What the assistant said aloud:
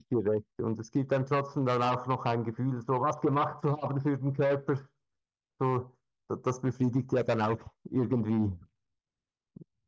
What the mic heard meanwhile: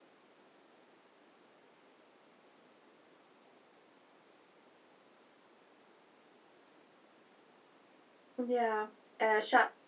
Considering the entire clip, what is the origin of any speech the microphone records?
user only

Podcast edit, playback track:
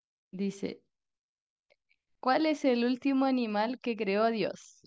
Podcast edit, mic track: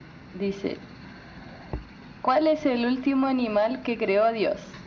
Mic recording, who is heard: echo only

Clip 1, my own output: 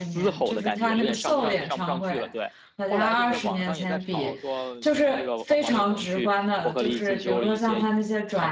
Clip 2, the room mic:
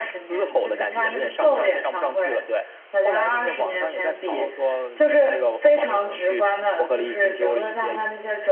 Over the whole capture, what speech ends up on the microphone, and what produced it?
echo only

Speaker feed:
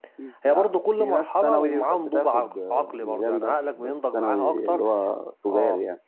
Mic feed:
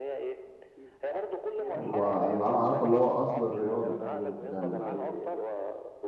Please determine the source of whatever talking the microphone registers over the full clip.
both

